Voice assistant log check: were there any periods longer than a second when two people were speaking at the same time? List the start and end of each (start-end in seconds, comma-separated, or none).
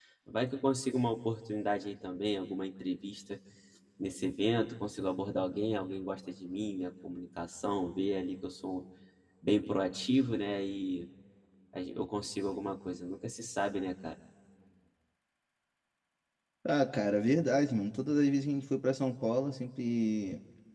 none